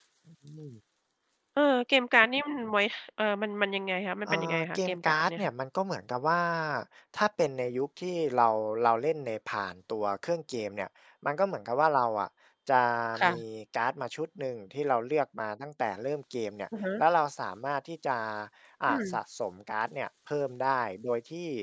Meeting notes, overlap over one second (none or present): present